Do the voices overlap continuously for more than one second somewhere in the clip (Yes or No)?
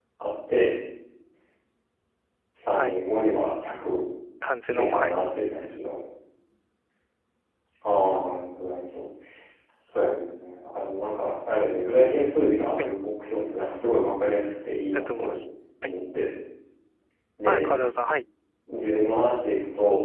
No